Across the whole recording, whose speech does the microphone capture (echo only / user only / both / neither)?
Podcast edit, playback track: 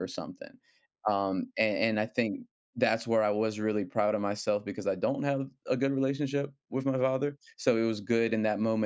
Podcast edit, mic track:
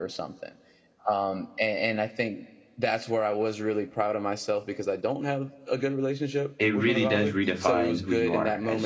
both